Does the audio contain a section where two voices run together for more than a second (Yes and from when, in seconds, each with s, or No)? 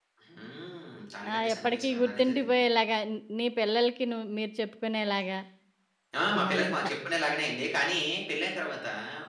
Yes, from 1.3 s